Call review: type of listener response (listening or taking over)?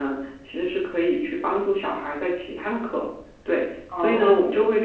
listening